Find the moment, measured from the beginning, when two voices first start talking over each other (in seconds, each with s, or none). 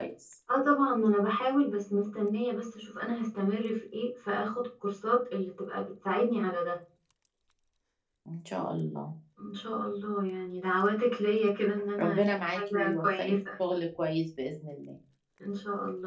12.0 s